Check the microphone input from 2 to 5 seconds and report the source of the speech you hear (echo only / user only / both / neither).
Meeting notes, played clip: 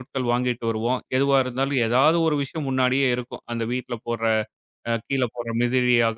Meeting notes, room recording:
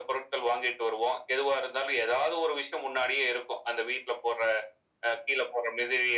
echo only